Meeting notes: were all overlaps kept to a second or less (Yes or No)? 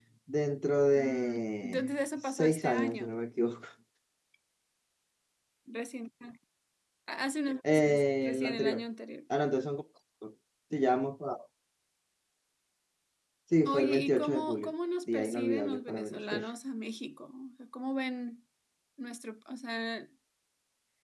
No